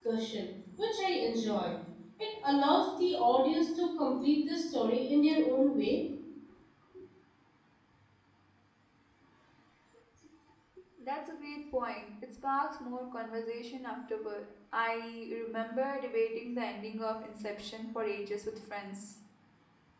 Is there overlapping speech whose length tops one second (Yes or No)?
No